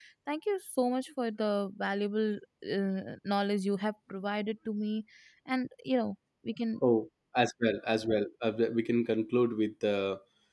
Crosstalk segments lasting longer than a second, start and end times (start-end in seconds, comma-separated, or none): none